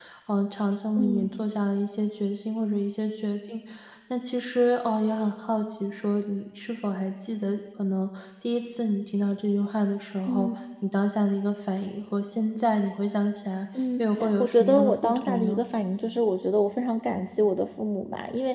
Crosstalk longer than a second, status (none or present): present